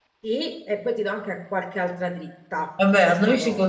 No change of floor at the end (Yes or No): No